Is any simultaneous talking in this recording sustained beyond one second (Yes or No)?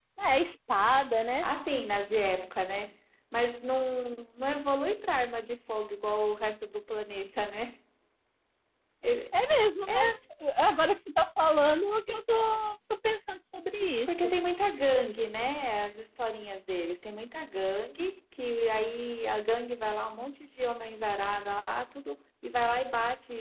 No